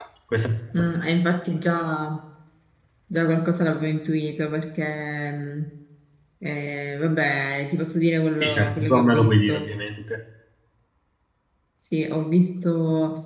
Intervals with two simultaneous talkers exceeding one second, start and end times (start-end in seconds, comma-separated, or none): 8.4-9.7